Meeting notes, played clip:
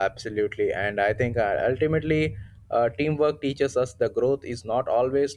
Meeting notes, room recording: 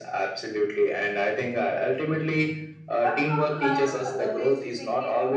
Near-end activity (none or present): present